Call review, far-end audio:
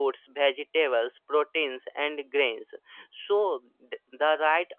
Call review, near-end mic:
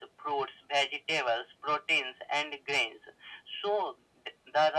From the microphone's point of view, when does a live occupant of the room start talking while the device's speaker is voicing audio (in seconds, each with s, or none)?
none